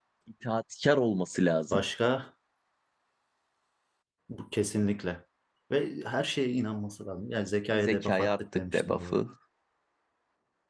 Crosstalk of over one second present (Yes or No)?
Yes